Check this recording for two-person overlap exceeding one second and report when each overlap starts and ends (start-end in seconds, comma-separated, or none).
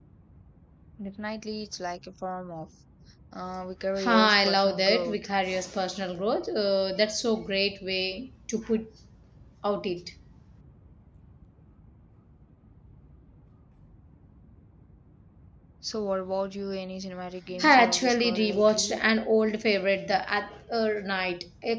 4.0-5.2, 17.6-19.0